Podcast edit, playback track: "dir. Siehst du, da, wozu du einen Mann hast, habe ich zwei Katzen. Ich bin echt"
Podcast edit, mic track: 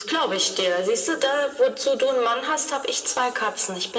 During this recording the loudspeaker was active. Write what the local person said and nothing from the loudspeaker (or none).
none